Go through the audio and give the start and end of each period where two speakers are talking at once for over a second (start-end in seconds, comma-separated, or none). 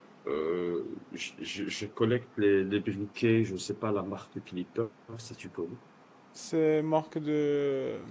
none